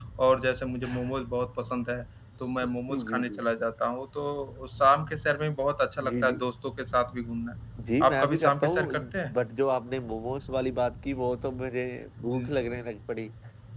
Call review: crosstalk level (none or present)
present